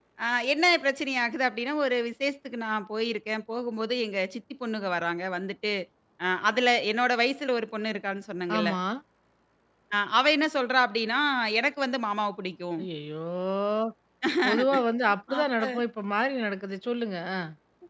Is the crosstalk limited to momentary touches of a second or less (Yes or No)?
Yes